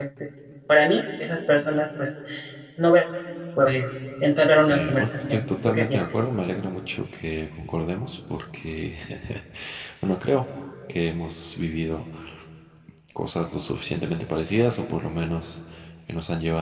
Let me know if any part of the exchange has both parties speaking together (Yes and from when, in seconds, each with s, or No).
Yes, from 4.7 s